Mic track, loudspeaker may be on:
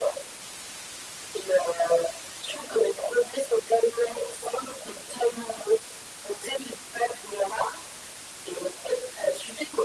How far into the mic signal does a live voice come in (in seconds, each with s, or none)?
none